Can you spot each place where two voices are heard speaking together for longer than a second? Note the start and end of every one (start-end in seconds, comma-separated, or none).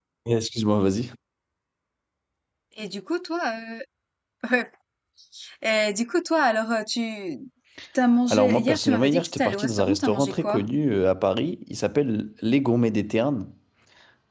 8.2-10.6